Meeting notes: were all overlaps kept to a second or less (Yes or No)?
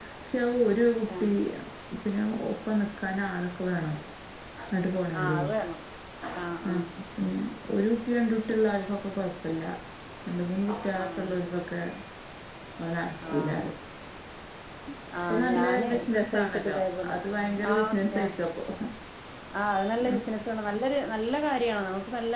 No